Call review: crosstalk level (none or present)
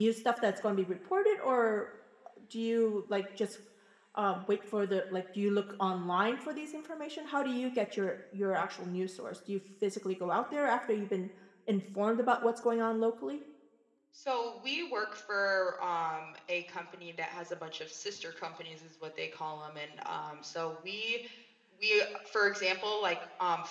none